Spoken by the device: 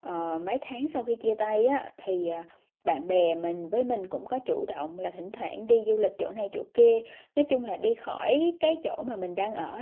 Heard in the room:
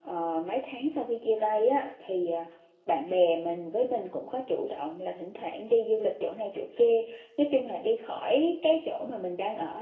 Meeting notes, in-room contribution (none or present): none